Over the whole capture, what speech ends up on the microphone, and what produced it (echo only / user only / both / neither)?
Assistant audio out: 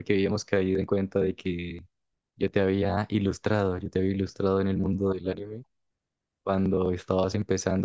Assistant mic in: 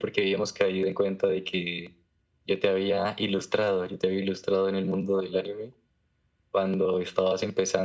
echo only